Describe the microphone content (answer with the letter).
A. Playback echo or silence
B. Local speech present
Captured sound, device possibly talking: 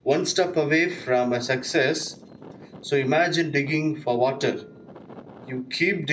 B